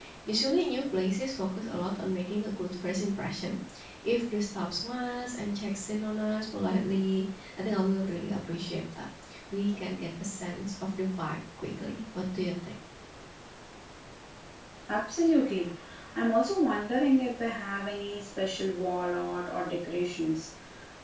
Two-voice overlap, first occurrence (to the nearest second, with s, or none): none